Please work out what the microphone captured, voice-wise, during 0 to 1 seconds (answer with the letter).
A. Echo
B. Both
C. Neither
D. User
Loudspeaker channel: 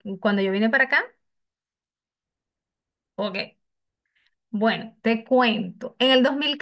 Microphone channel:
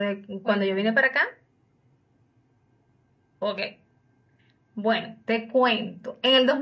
B